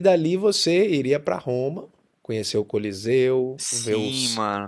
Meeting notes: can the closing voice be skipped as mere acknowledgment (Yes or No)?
No